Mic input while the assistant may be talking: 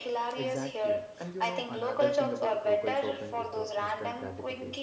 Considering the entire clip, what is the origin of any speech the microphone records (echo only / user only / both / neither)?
both